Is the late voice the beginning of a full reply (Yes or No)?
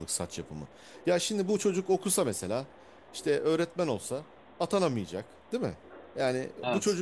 No